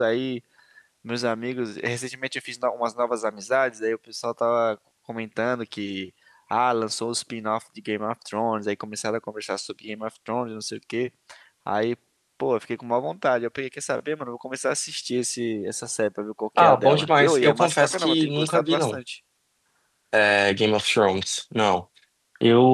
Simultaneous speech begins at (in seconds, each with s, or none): 16.6 s